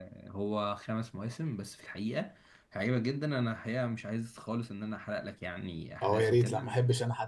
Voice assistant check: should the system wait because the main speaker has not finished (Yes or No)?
No